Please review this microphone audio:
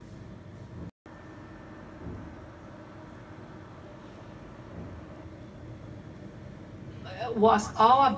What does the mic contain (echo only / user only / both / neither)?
user only